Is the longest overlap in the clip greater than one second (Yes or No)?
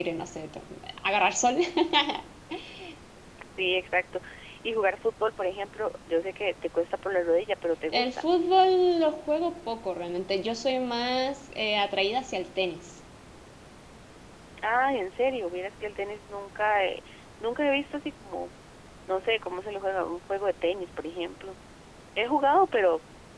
No